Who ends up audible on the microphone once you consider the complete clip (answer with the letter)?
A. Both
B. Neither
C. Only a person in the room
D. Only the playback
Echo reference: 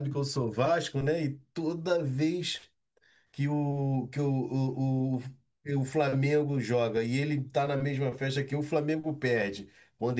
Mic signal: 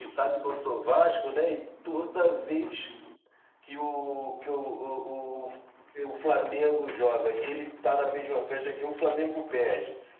D